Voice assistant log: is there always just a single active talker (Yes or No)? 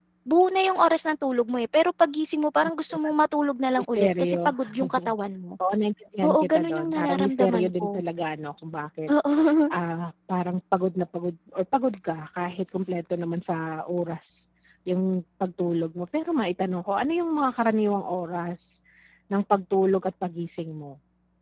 No